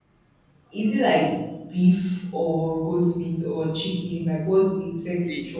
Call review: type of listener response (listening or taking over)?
taking over